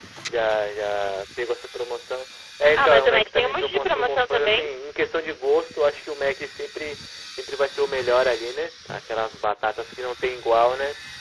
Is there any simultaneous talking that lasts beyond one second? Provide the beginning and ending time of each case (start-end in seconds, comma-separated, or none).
2.8-4.7